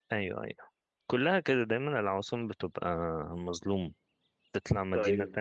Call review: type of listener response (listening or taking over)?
listening